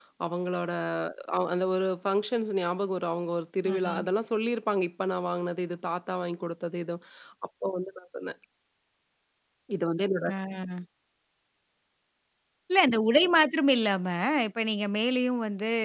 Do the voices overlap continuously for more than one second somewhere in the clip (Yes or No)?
No